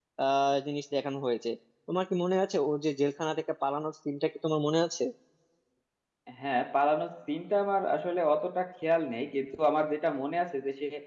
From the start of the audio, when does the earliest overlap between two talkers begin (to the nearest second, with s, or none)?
none